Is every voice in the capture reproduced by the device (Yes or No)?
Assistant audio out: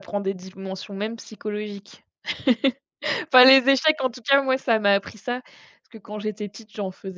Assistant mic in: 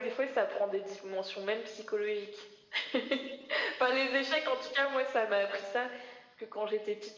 Yes